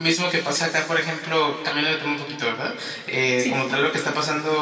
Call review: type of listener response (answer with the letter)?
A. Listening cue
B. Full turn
A